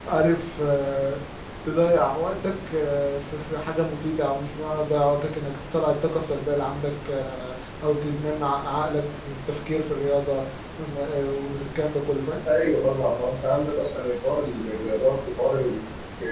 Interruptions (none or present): none